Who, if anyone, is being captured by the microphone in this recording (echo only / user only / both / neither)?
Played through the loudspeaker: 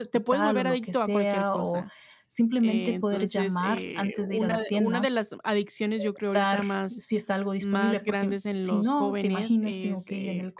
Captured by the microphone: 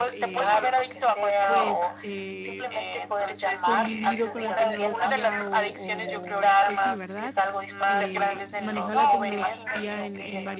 both